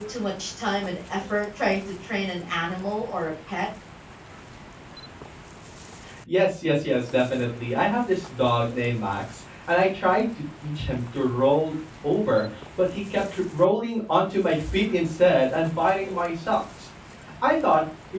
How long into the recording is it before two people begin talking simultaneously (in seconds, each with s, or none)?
none